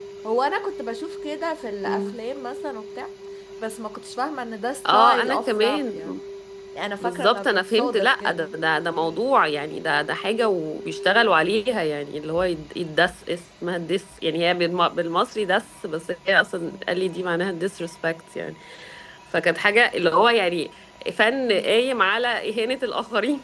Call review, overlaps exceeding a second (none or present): present